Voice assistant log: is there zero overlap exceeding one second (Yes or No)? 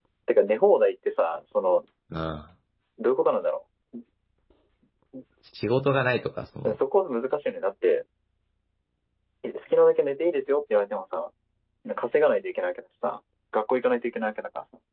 Yes